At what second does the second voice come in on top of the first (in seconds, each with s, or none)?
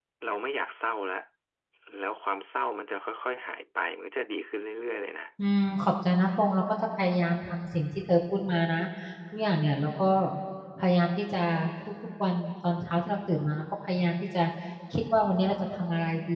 none